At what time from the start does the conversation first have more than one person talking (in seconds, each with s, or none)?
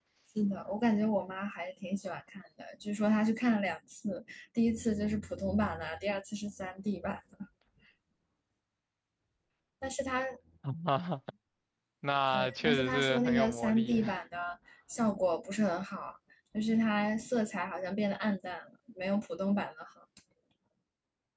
12.3 s